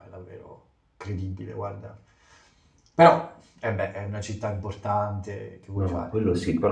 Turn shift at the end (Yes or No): Yes